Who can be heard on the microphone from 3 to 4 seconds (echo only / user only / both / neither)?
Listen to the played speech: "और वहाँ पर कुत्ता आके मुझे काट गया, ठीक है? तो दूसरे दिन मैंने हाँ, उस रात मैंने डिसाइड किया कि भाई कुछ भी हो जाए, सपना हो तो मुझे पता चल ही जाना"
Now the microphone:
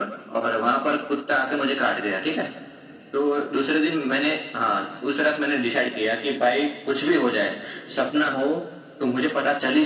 echo only